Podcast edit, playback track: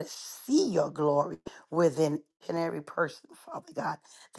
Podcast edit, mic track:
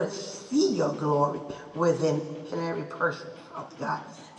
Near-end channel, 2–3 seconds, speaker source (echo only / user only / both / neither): echo only